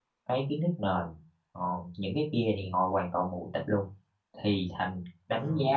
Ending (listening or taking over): listening